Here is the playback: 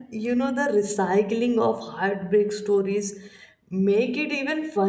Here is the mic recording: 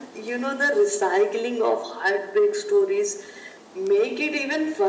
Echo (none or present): present